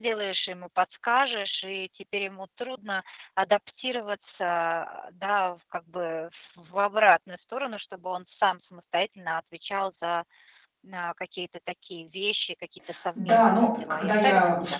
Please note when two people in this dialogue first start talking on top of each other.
13.2 s

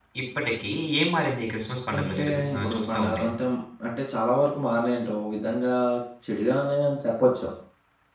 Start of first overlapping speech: 1.9 s

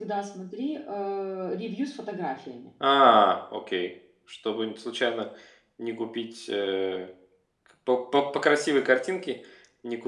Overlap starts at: none

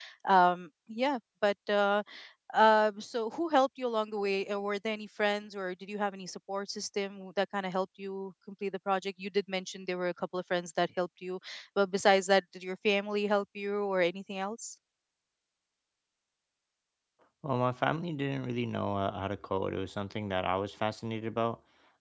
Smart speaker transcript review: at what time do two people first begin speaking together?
none

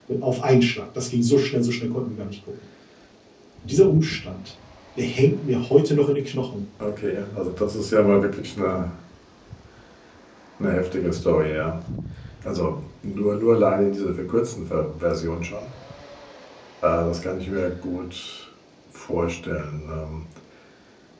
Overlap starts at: none

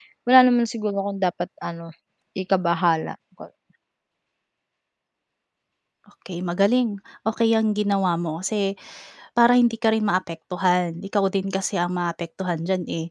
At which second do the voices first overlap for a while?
none

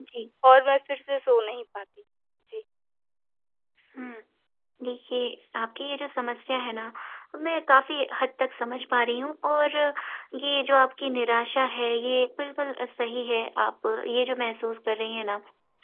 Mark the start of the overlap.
none

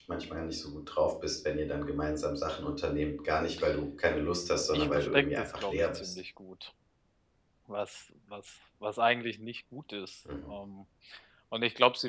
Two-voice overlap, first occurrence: 4.7 s

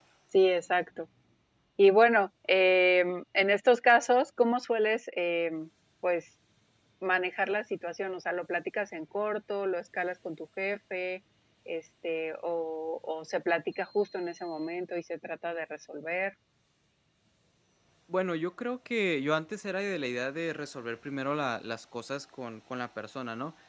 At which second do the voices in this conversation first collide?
none

